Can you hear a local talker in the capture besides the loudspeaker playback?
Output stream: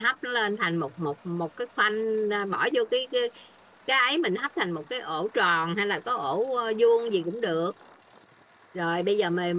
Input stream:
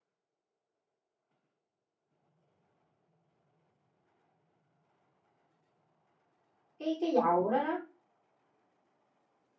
Yes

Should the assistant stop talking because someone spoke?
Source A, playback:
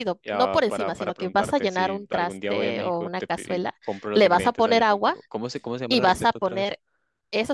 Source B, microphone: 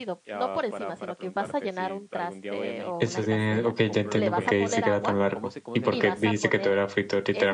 Yes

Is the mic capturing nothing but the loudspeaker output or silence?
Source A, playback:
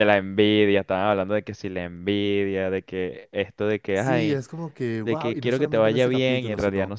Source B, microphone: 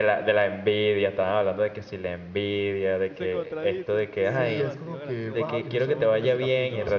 No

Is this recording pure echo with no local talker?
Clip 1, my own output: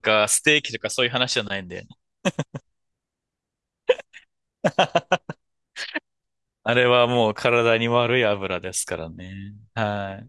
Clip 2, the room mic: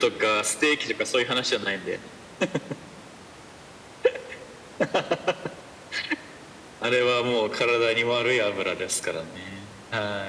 Yes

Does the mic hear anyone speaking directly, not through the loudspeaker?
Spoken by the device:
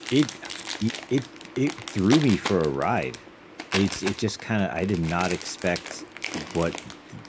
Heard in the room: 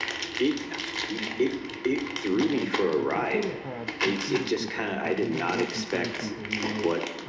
Yes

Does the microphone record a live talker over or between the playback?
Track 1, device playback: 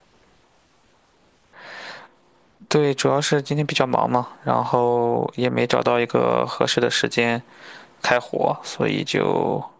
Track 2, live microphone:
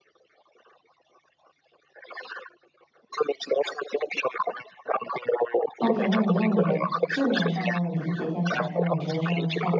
Yes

